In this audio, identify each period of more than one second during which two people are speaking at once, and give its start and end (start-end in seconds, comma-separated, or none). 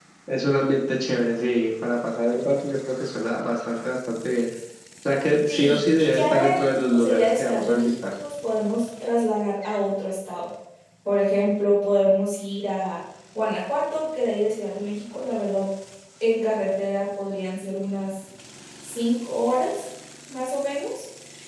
5.5-7.9